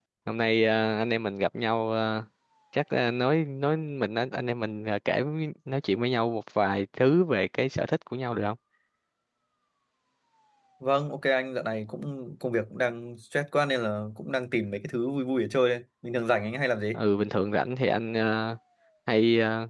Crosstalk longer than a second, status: none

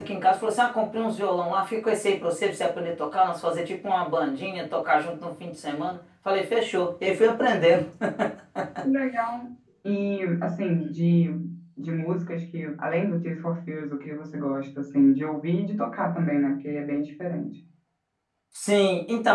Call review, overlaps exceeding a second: none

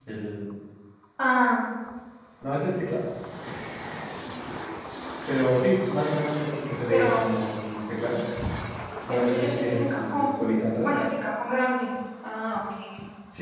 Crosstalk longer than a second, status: present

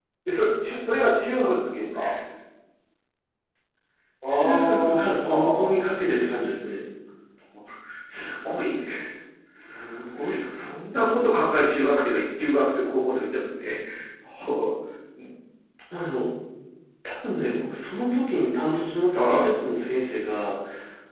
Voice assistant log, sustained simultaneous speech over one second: present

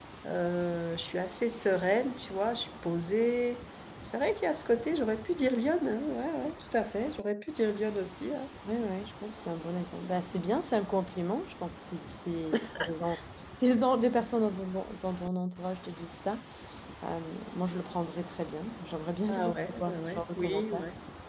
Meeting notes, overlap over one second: present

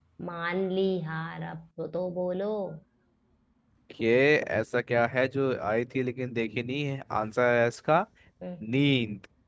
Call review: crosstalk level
none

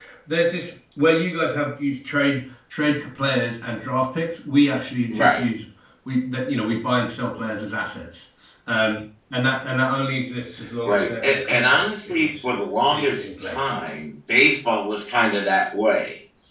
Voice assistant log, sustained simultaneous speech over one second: present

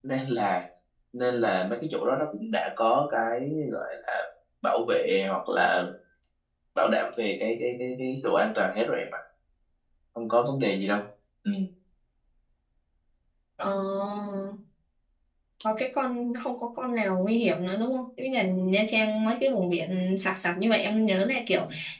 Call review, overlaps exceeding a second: none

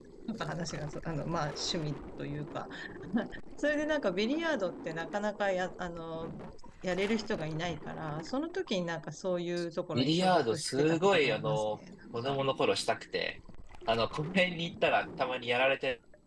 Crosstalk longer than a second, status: present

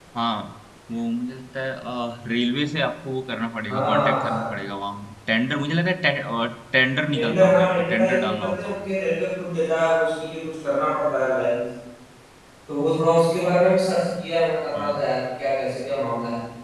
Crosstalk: present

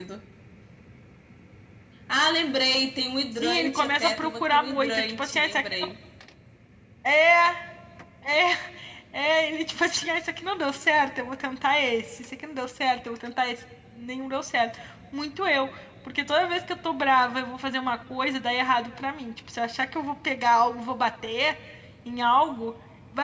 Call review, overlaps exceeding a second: present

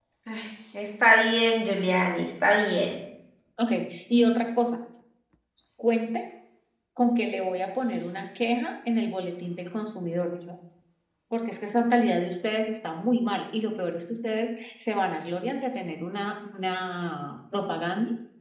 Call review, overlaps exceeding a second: none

